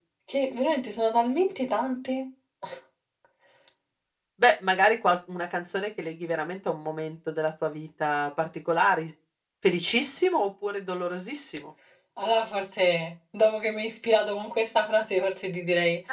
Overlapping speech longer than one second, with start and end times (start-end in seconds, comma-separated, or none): none